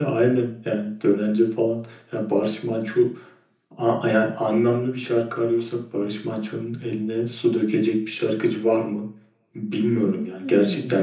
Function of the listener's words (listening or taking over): taking over